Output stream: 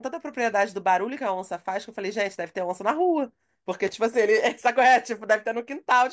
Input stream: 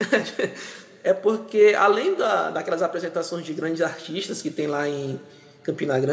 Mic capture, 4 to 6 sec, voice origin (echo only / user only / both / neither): user only